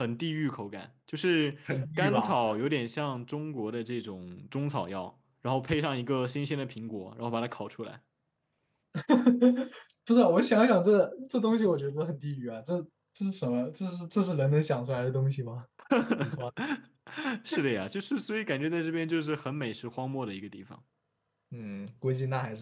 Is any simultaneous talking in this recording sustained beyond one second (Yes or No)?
No